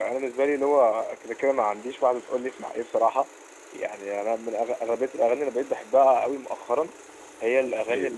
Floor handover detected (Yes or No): No